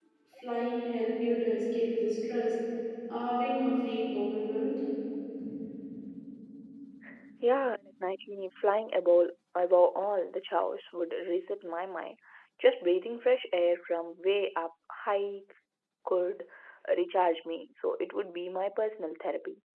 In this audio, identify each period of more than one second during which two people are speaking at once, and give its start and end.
none

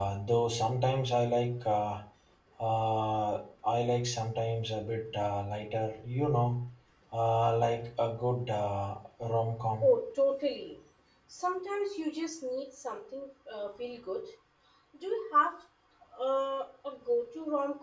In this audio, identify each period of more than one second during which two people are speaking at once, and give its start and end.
none

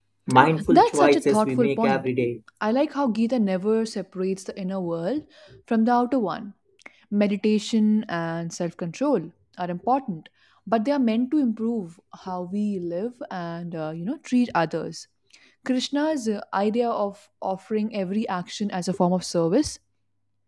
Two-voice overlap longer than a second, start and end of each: 0.7-2.1

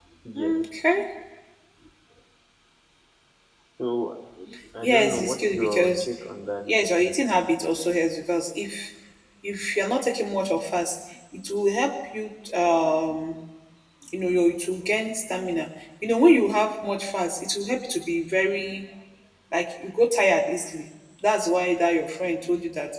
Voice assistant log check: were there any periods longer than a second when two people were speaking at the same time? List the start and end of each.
4.8-6.0

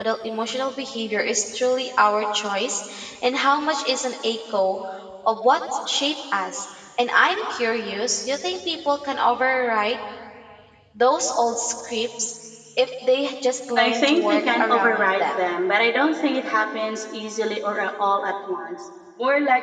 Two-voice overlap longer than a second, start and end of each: 13.8-15.4

